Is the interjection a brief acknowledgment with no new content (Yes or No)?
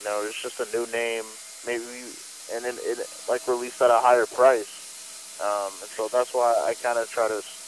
Yes